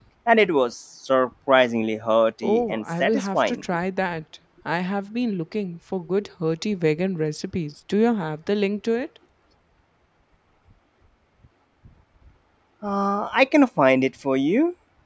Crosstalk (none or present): present